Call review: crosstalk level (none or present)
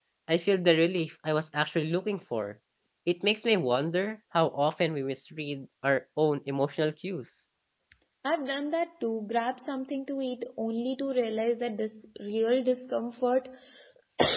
none